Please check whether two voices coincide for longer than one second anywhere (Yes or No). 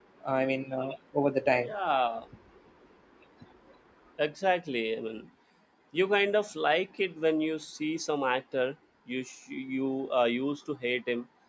No